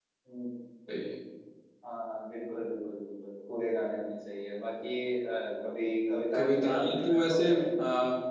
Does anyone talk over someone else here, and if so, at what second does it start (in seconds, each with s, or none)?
6.3 s